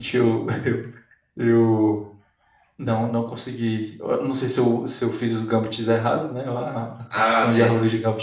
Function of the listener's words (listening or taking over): listening